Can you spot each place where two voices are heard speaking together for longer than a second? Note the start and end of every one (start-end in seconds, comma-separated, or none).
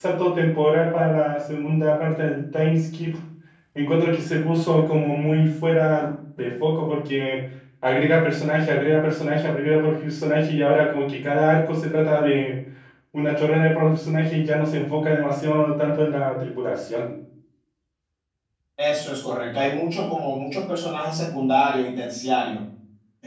none